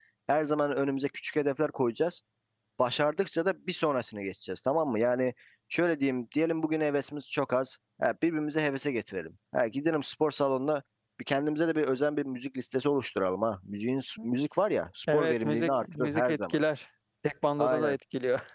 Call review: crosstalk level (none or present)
present